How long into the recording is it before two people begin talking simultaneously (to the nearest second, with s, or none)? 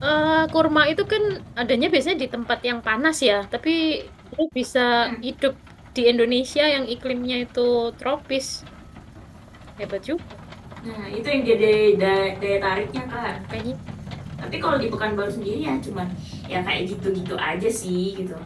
none